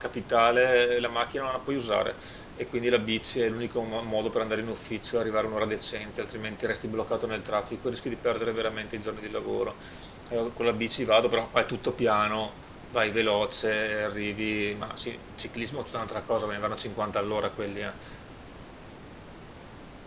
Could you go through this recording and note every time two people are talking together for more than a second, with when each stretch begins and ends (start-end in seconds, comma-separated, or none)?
none